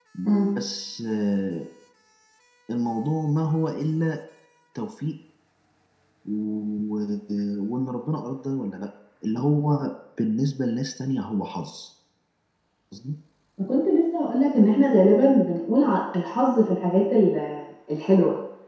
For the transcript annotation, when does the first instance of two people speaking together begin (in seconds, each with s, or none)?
none